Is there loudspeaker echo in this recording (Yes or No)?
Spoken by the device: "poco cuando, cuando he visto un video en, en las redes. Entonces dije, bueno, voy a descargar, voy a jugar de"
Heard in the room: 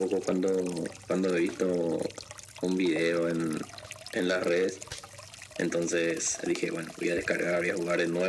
Yes